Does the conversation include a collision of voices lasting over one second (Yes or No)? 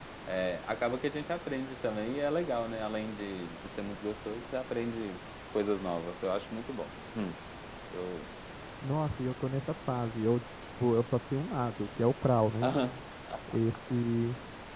No